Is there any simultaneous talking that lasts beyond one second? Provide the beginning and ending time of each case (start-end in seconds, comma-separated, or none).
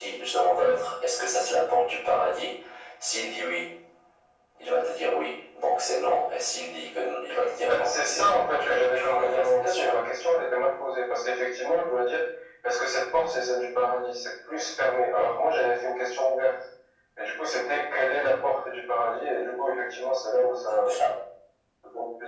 7.7-10.0